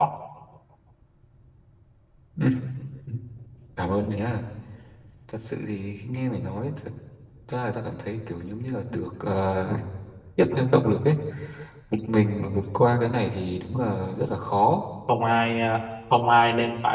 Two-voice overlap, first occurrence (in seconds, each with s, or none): none